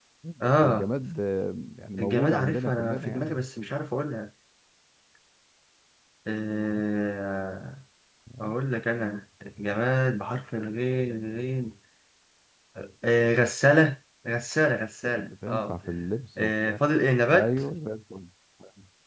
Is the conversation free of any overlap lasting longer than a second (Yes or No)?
No